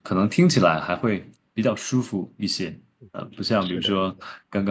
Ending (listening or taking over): listening